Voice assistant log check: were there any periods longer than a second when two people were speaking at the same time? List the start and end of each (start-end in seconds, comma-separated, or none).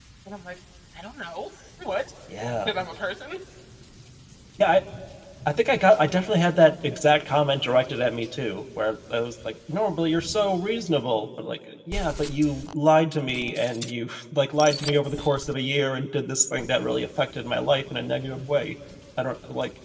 none